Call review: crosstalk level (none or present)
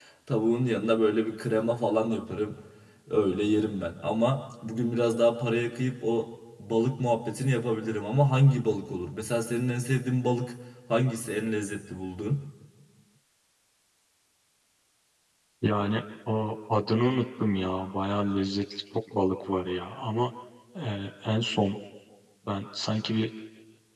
none